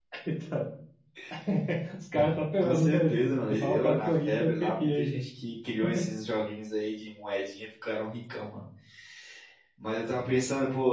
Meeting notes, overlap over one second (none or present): present